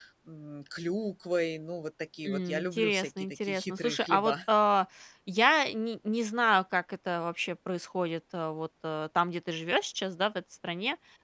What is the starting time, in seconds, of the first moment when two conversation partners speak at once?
2 s

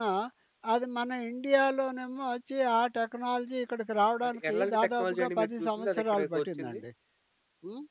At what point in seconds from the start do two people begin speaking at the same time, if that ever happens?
4 s

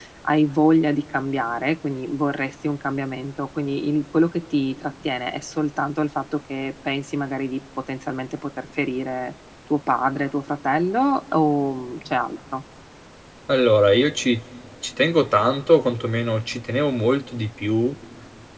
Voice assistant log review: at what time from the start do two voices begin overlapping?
none

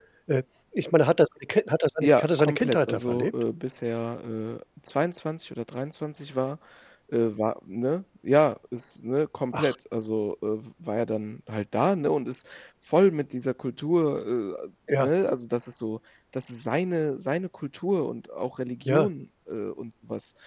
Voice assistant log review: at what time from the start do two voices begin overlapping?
2 s

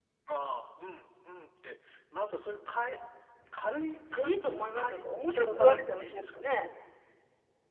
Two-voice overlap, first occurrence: 4 s

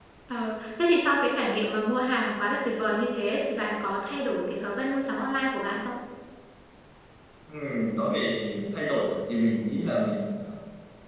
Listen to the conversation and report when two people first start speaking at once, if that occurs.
none

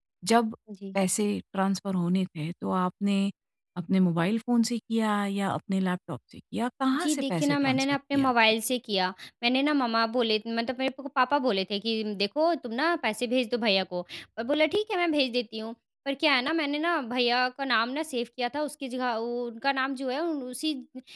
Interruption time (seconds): 7 s

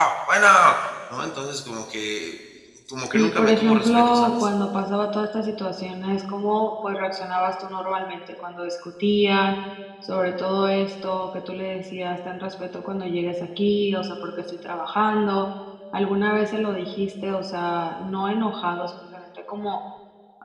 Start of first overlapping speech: 3 s

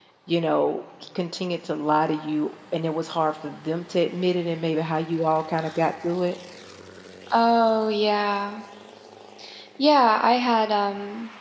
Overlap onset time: none

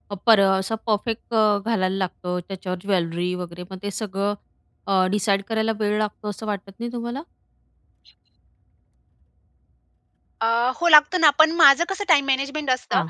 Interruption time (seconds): none

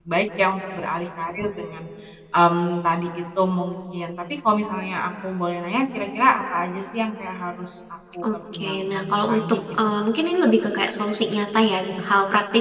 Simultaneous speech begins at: 8 s

